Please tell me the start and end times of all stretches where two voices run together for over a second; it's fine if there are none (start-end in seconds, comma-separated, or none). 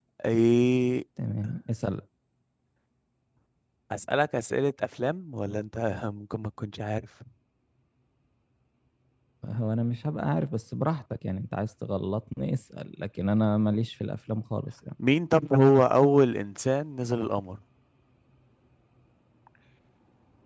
none